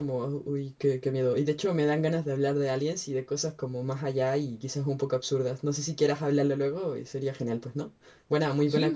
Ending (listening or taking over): taking over